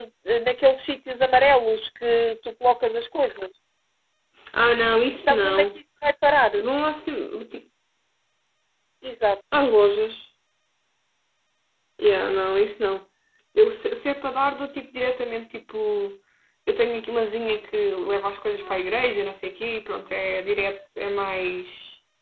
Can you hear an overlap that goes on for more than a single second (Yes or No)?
No